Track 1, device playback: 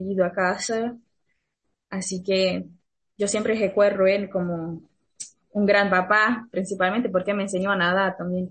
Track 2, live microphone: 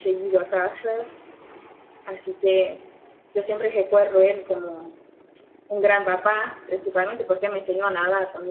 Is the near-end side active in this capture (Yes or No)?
No